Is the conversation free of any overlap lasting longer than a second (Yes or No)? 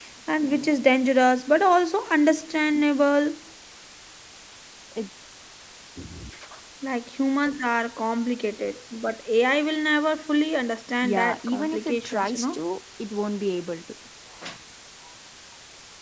No